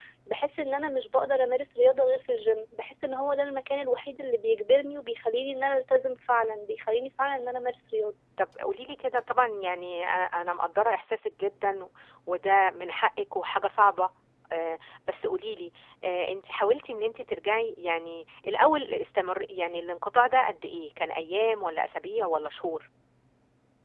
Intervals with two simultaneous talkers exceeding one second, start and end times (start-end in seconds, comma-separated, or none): none